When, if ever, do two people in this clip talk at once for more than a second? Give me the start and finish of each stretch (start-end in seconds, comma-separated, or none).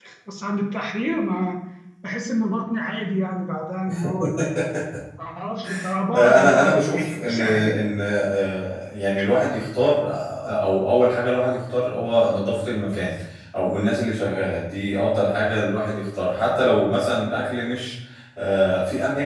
6.1-7.8